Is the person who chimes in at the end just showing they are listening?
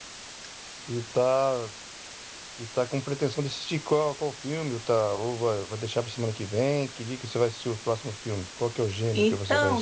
No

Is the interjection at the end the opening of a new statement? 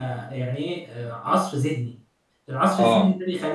No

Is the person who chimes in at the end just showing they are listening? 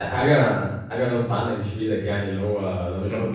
No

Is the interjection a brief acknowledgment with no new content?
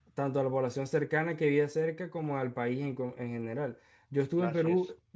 Yes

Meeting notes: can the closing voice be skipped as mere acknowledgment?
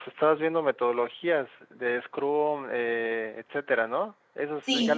No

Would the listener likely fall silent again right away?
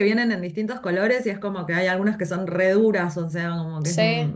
No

